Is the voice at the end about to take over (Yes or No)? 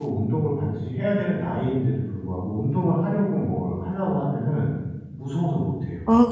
Yes